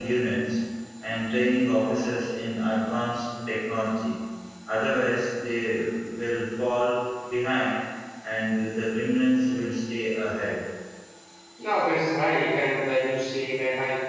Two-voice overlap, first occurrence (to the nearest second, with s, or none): none